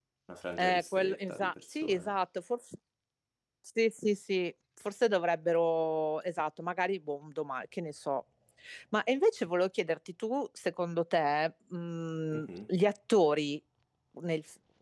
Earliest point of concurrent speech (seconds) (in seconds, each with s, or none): 0.6 s